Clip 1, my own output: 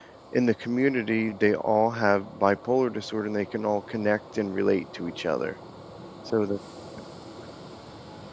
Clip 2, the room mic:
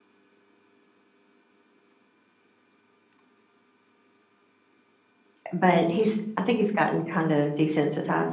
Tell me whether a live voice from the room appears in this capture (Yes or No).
Yes